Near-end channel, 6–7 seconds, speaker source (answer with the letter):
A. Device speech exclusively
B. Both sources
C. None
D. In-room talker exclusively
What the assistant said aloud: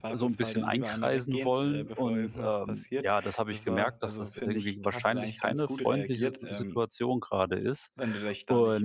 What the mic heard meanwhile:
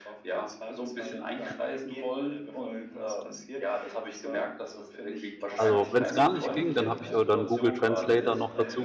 B